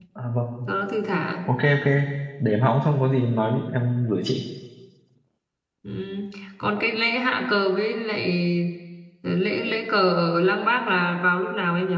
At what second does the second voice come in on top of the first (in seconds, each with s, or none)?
none